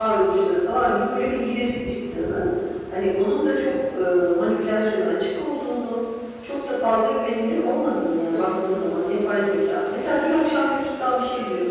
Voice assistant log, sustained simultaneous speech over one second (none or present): none